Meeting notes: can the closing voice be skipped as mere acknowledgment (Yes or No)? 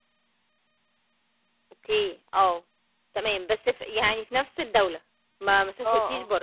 No